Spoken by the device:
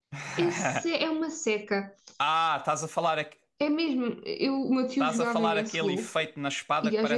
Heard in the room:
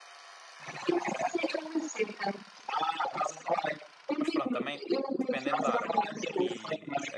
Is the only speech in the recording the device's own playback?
No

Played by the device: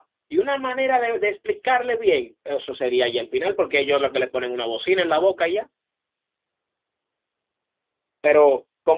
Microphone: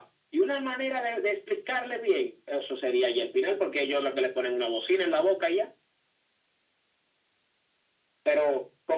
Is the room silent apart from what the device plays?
Yes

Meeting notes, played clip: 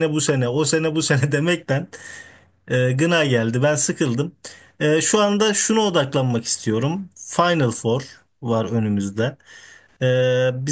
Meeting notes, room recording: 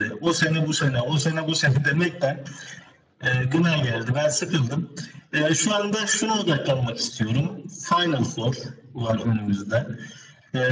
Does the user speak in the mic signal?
No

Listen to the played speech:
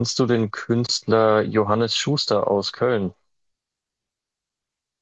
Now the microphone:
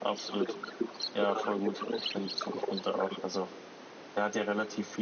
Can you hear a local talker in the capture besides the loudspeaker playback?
Yes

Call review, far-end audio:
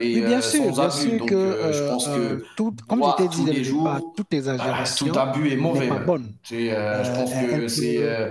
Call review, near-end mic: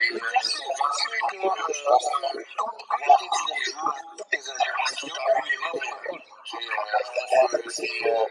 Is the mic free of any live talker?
Yes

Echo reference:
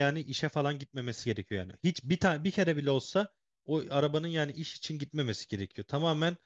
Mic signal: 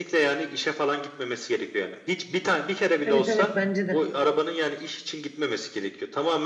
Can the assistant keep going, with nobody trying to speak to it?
No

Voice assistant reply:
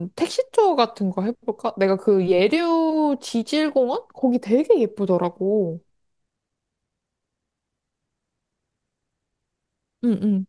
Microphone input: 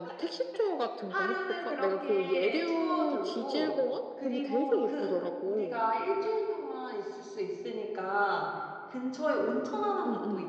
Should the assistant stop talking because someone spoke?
Yes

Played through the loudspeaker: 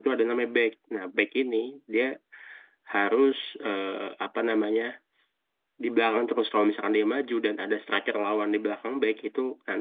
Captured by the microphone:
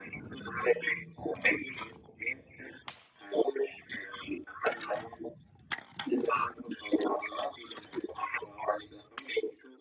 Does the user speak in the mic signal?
No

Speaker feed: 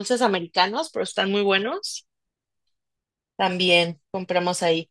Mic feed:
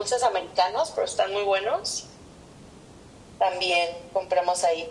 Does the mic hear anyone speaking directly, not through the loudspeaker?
No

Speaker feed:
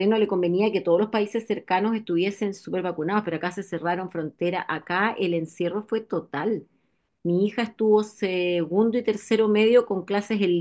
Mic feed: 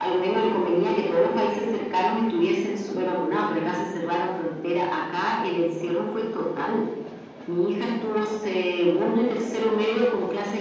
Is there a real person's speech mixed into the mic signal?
No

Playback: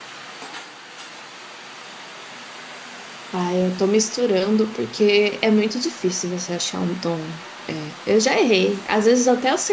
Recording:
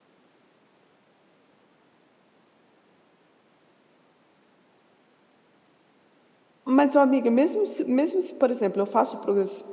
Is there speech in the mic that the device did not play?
Yes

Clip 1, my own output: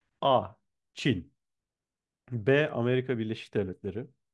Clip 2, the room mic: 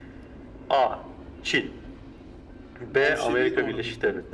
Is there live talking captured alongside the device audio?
Yes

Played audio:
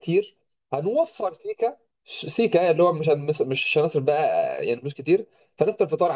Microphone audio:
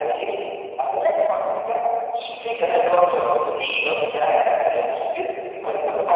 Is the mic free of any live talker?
No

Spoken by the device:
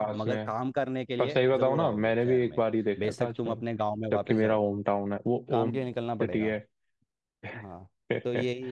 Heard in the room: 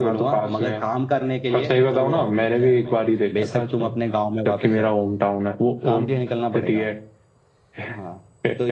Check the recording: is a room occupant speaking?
No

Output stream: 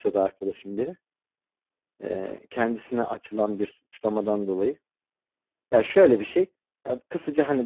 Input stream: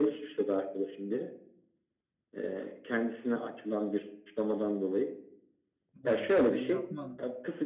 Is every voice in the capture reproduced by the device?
No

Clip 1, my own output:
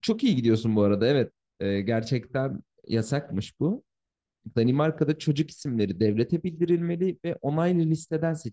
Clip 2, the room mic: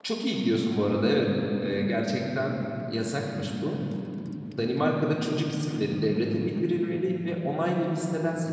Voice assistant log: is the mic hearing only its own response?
Yes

